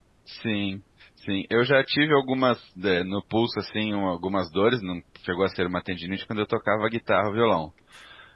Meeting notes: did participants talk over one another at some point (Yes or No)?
No